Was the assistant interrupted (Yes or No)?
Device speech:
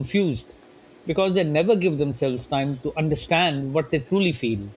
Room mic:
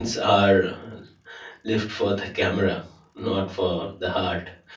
Yes